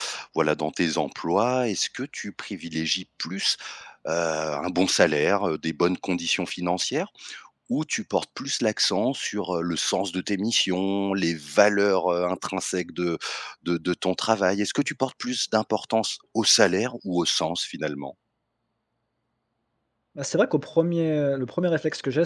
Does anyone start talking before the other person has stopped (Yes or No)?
No